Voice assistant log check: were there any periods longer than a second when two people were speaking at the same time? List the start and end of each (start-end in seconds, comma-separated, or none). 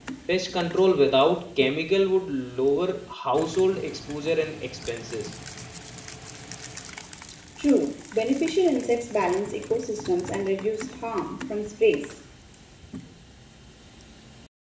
none